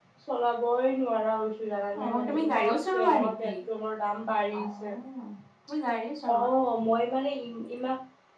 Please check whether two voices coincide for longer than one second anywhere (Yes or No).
Yes